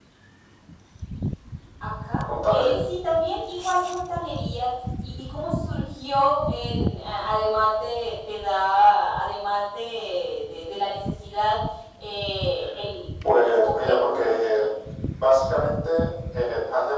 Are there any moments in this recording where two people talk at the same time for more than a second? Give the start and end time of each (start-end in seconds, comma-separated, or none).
13.4-14.7